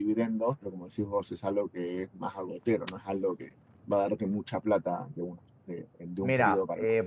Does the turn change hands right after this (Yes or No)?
Yes